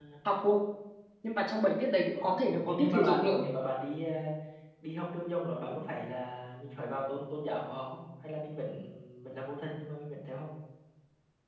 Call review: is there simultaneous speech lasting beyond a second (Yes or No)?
Yes